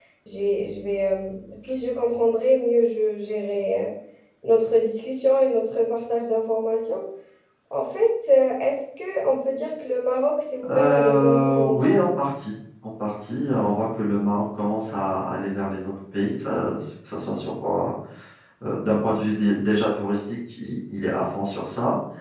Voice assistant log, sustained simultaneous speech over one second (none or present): present